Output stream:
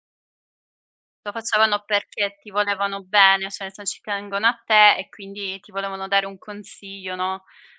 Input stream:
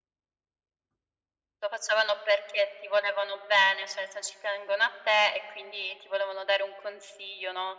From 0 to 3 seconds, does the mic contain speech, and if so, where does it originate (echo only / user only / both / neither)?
echo only